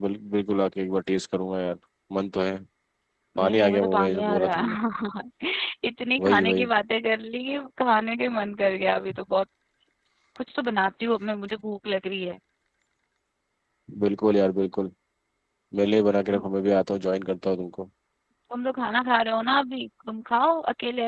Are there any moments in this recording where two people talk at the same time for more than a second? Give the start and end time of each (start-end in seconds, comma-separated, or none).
3.4-4.6